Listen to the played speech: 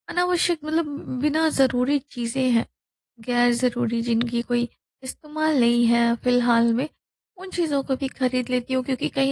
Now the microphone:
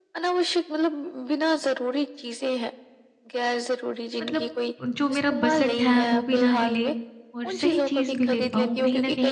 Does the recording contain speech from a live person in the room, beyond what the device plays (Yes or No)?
Yes